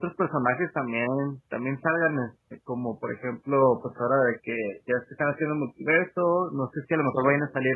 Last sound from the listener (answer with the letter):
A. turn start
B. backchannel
B